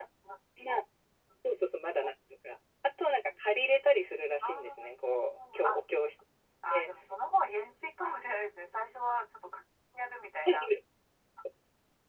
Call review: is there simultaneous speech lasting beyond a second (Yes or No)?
No